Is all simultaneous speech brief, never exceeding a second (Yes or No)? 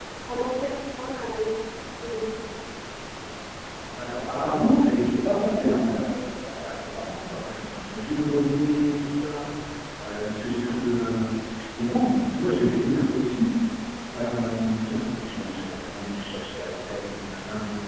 Yes